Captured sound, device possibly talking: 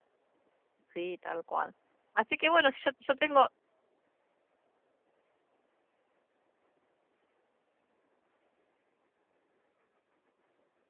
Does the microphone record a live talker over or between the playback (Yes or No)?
Yes